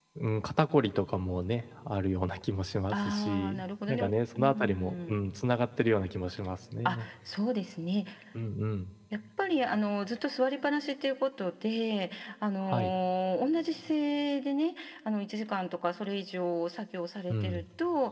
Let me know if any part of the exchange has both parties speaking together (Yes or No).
Yes